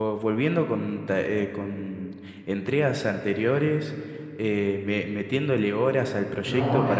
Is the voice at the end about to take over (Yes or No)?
Yes